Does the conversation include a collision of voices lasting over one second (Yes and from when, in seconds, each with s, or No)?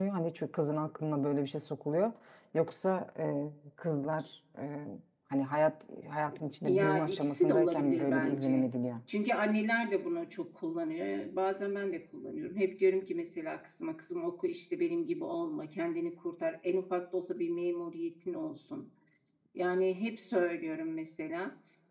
Yes, from 6.6 s